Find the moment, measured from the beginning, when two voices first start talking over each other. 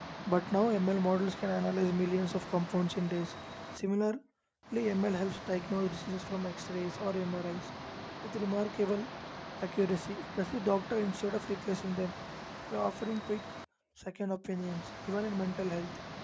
none

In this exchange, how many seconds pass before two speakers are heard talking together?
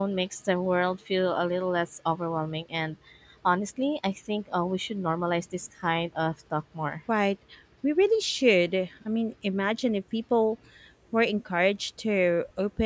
none

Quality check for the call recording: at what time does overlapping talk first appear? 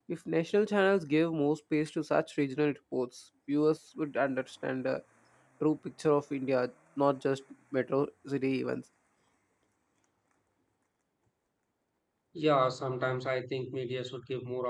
none

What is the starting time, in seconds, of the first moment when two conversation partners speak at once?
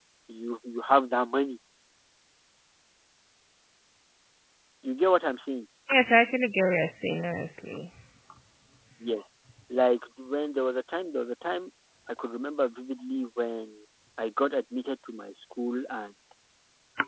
none

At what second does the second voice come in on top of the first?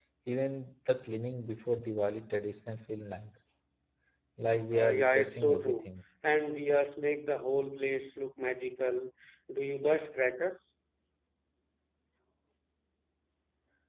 4.7 s

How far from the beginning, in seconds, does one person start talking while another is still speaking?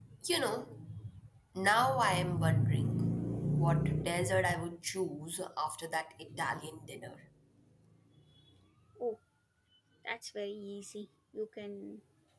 none

